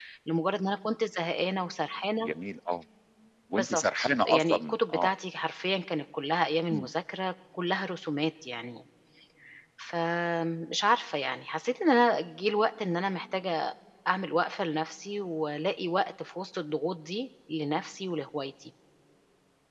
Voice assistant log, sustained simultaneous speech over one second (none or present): present